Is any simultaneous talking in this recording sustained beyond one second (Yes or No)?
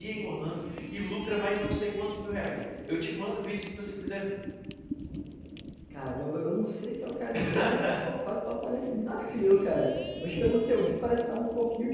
No